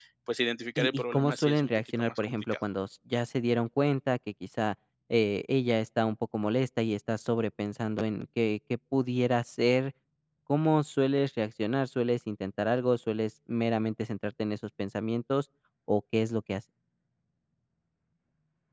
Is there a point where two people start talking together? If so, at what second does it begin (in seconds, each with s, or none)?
0.8 s